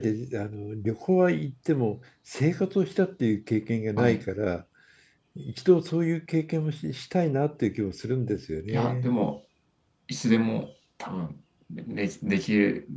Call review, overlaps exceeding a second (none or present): none